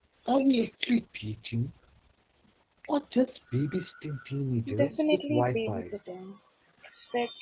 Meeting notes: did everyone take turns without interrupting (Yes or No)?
No